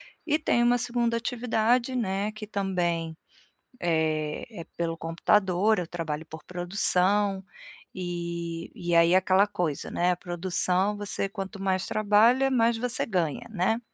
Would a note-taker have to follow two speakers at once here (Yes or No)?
No